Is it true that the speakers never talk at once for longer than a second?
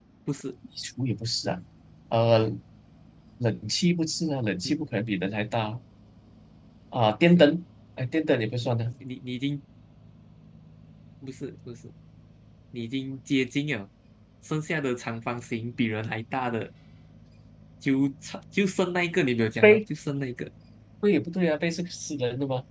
Yes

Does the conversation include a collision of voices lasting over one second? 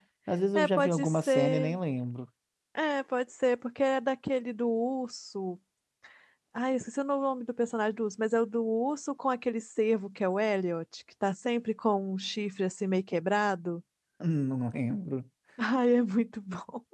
Yes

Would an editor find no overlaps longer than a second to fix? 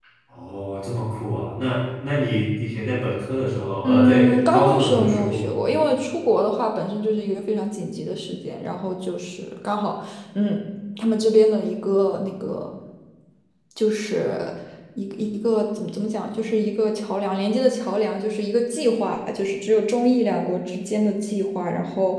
No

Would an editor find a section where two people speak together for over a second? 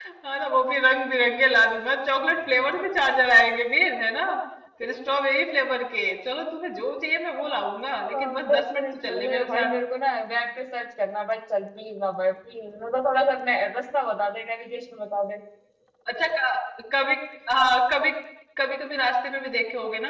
Yes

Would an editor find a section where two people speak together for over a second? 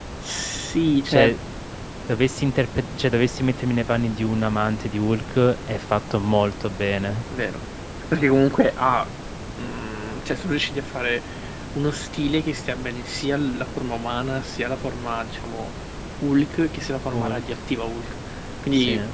No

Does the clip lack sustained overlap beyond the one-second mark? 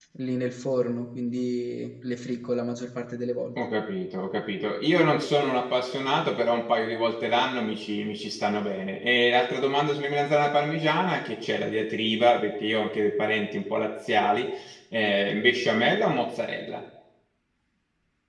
Yes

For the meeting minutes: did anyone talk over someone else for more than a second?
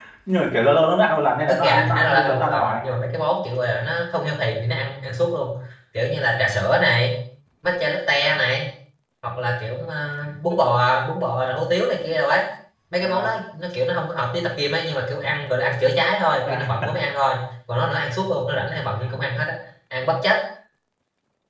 Yes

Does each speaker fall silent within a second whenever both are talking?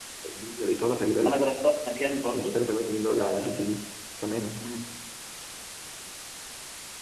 Yes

